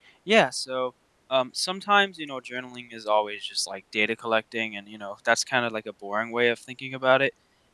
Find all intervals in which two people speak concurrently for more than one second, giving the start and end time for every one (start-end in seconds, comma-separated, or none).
none